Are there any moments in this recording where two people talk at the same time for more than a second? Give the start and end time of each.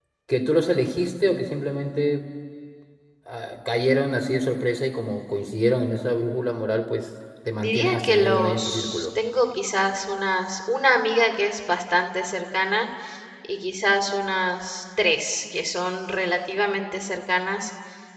7.6-9.1

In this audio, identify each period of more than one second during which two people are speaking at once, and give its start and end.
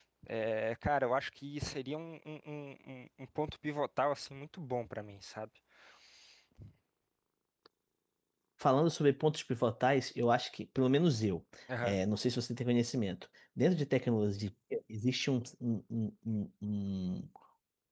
none

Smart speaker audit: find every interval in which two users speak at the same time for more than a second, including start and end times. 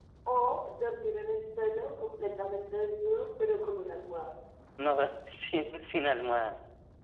none

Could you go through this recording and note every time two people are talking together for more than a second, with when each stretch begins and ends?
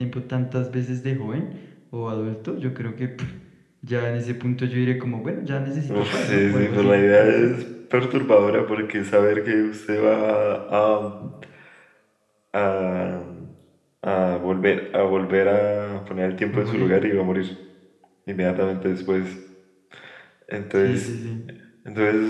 5.9-7.5

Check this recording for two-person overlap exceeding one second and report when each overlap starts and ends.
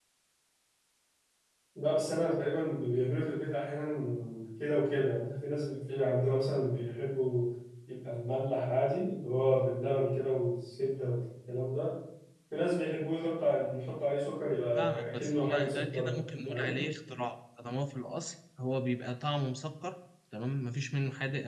14.8-16.8

